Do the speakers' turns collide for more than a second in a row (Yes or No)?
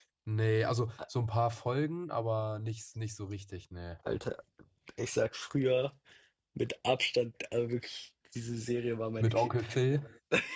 No